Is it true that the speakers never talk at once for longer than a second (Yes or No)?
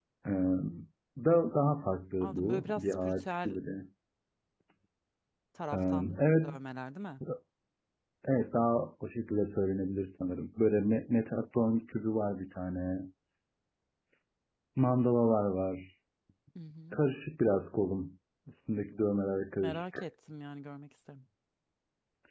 No